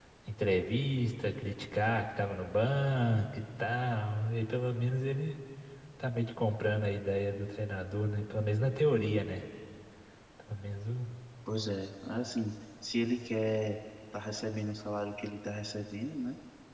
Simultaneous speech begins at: none

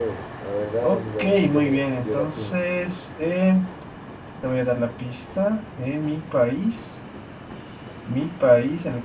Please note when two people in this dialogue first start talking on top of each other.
0.8 s

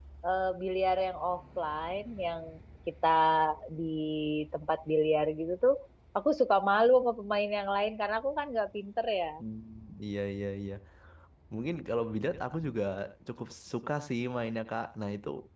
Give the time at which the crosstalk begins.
none

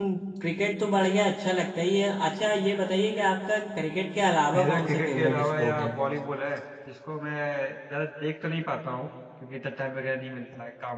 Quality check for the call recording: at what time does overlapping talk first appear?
4.5 s

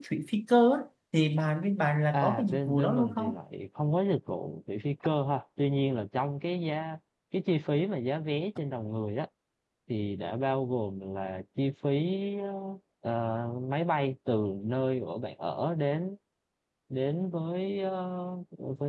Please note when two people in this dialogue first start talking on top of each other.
2.1 s

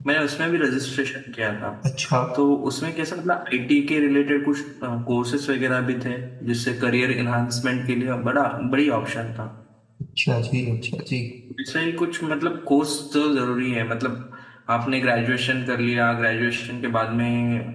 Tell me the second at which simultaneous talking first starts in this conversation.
none

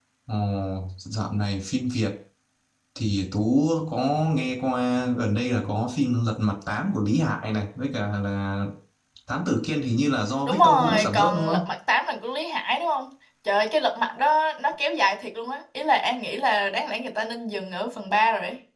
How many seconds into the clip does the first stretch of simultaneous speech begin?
10.4 s

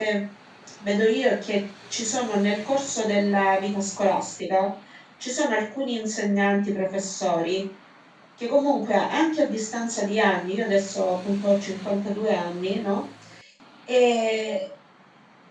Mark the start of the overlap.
none

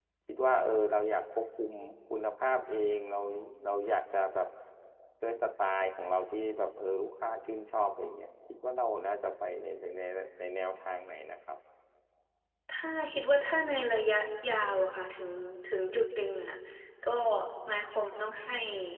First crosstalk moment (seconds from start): none

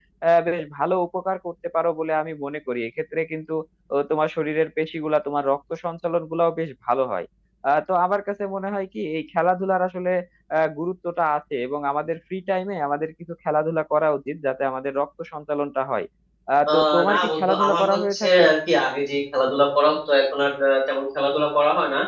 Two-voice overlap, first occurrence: 16.7 s

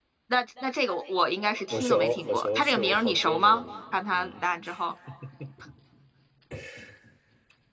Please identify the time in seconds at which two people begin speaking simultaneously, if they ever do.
1.7 s

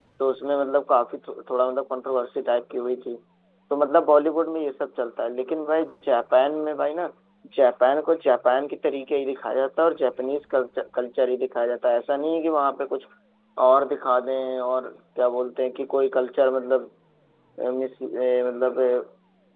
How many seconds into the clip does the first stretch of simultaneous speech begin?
none

